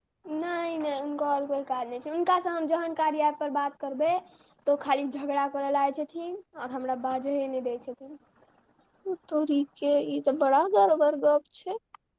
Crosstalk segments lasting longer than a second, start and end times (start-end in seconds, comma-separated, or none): none